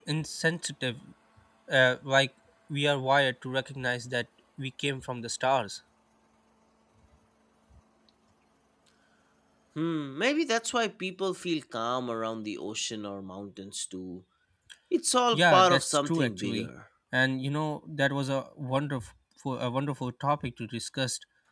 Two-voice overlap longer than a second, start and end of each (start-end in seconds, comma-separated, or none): 15.3-16.7